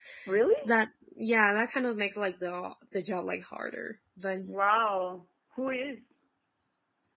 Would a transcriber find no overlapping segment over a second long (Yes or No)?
Yes